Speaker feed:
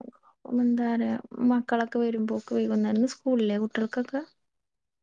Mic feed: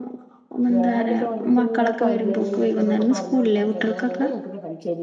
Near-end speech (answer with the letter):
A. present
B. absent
A